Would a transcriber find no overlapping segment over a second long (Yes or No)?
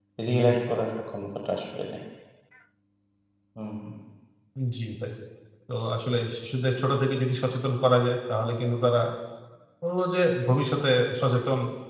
Yes